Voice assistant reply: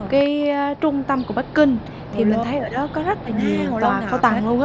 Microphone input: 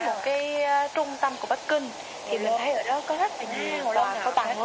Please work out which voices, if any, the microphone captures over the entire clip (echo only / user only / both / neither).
echo only